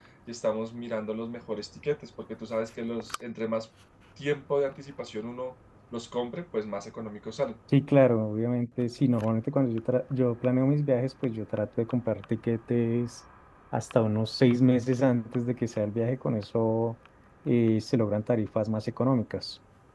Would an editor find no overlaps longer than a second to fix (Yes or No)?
Yes